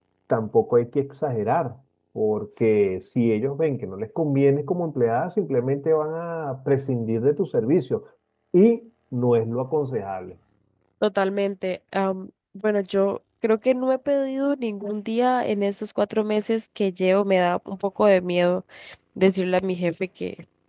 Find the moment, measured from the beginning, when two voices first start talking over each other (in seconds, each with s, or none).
none